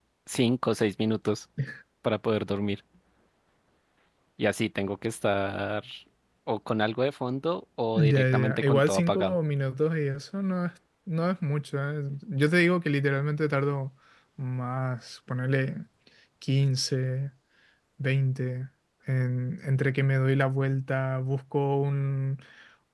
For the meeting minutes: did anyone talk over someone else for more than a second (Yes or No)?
Yes